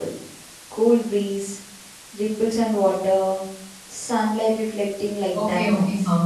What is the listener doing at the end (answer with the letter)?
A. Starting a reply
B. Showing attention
A